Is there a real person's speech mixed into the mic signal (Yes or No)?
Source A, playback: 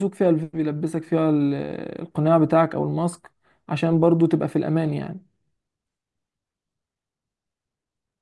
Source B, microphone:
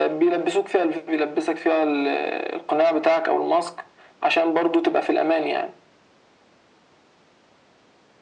No